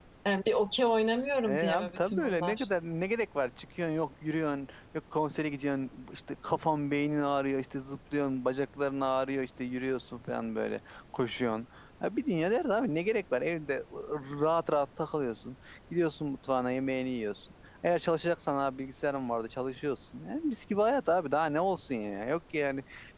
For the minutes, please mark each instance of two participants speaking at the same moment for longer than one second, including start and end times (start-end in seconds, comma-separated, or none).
1.5-2.7